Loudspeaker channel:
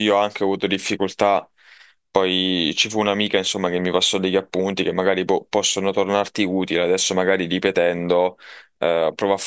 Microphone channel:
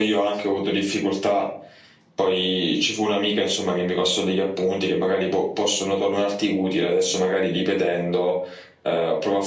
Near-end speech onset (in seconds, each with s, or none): none